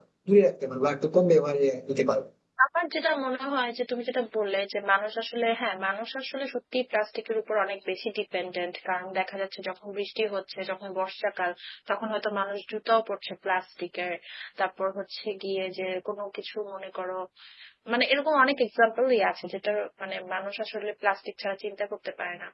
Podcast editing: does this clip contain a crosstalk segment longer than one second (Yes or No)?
No